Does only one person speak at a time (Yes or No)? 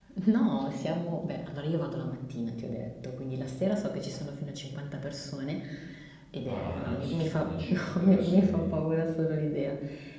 No